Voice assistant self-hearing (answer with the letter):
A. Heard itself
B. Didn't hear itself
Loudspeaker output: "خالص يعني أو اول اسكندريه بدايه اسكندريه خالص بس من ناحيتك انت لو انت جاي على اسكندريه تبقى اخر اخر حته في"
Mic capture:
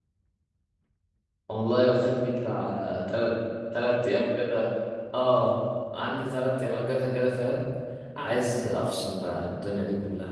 B